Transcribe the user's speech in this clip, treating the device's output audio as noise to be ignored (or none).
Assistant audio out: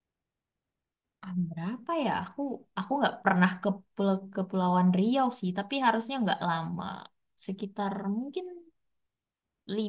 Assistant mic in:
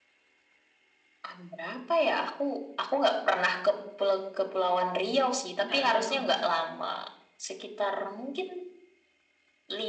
nggak beda provinsi.